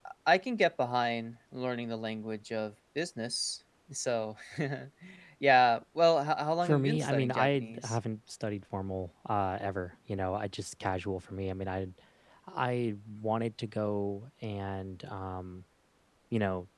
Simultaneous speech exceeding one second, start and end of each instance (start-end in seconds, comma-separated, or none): 6.6-8.0